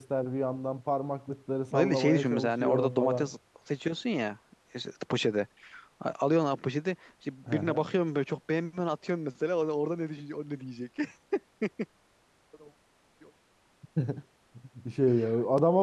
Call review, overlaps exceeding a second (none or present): present